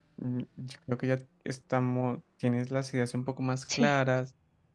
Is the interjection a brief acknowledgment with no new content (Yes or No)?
Yes